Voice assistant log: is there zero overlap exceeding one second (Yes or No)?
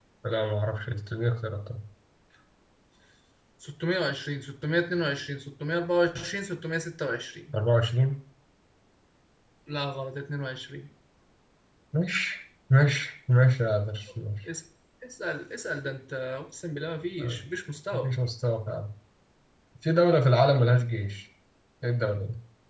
Yes